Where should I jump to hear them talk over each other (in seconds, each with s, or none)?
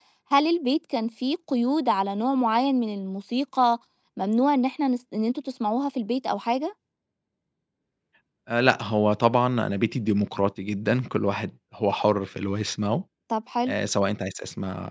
none